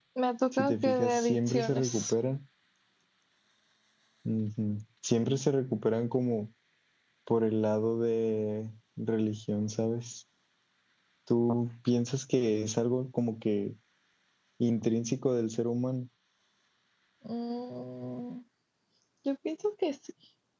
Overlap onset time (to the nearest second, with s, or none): 1 s